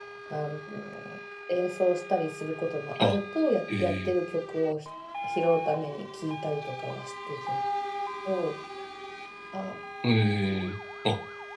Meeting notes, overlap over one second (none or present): none